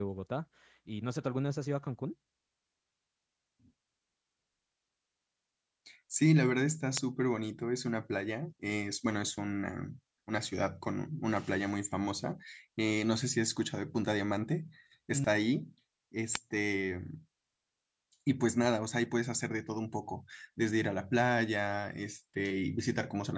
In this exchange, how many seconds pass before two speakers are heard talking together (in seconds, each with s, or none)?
none